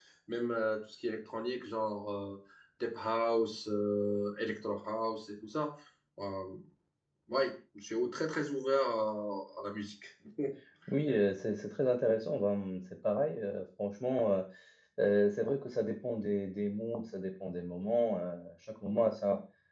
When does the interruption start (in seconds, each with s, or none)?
none